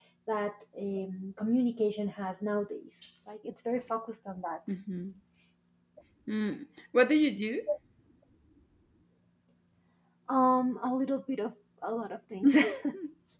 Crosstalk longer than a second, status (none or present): none